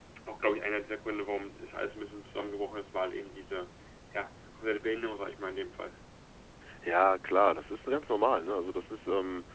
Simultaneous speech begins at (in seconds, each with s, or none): none